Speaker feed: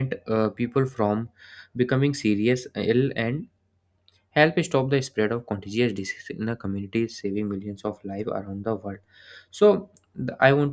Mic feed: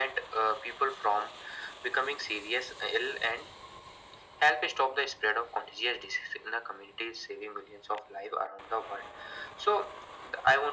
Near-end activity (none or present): none